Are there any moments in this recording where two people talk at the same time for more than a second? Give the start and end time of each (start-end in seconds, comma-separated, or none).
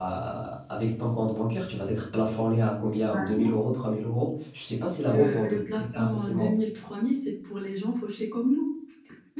5.1-6.5